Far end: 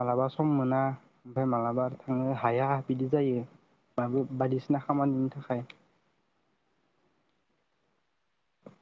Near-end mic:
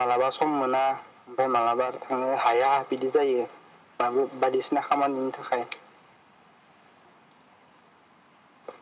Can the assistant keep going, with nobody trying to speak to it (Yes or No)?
Yes